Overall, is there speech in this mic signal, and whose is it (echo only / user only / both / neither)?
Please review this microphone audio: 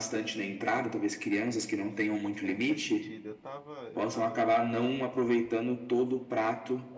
both